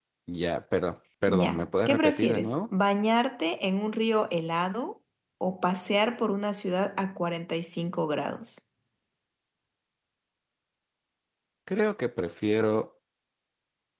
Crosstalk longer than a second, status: present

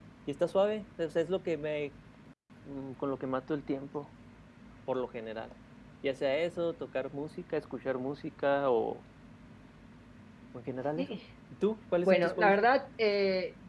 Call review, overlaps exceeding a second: none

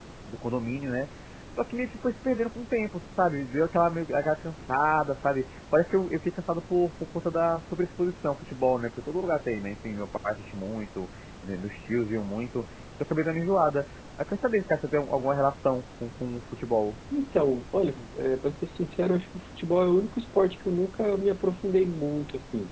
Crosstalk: none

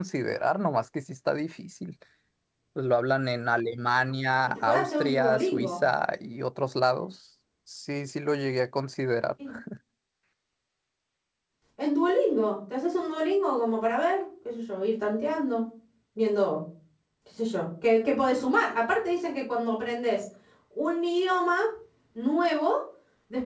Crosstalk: present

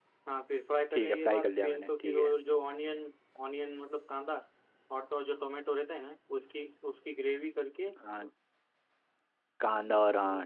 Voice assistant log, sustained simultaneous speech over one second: present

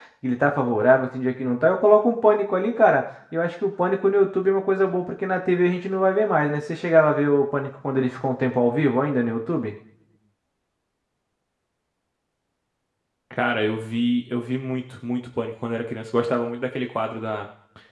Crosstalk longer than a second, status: none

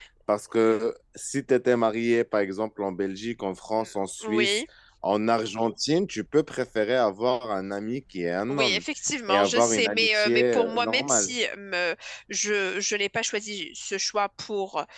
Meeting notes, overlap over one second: present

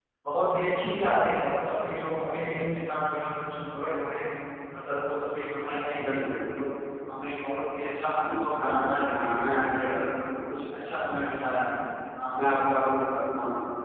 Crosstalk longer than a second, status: present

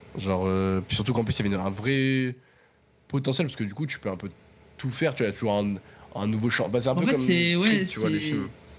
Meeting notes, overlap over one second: present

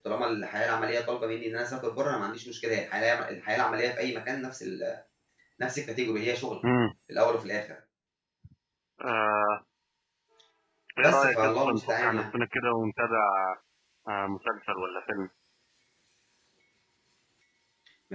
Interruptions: present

